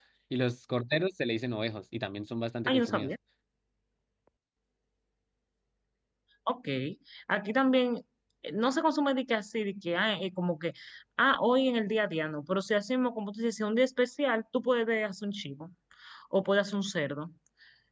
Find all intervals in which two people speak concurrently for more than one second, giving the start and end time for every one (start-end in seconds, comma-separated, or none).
none